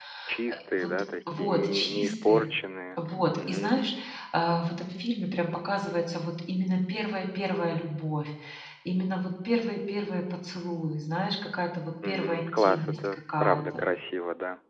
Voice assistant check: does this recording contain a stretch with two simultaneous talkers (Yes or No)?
Yes